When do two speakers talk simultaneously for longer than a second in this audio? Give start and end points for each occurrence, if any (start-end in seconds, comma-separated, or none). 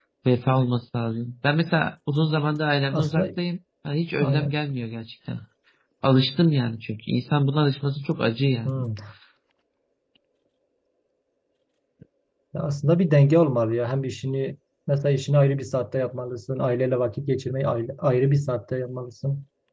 none